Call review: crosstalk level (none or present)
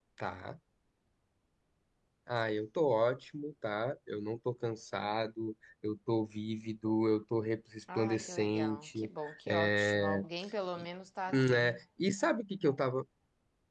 present